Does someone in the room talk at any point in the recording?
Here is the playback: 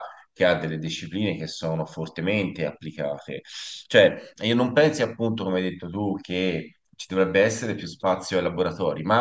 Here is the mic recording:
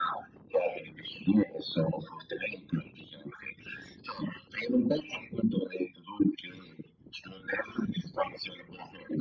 No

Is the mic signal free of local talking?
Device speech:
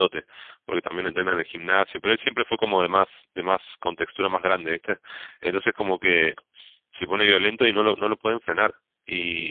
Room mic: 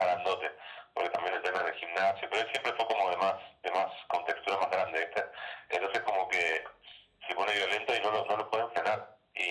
Yes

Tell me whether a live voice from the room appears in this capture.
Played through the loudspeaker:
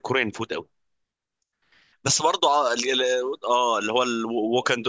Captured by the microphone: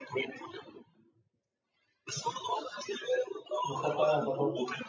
Yes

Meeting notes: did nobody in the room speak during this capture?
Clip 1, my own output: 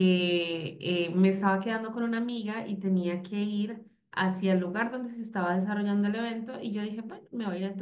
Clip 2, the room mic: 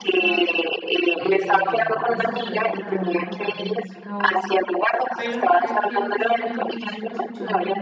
No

